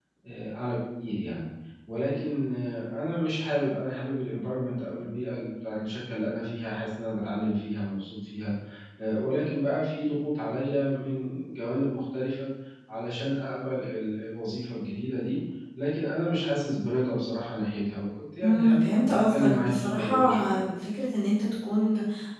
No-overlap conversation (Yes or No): No